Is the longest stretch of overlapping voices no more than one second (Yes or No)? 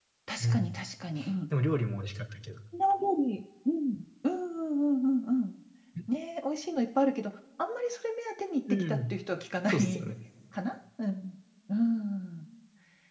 Yes